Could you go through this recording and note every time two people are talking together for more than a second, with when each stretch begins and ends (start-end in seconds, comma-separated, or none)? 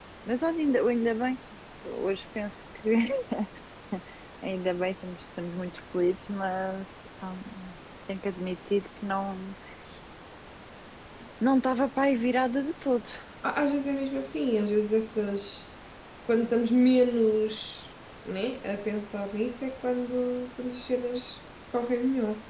none